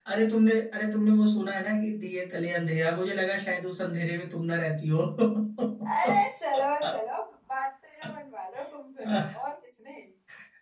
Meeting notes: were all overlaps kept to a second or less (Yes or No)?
Yes